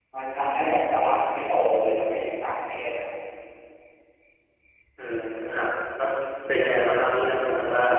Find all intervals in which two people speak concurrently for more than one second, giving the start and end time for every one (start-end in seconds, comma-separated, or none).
none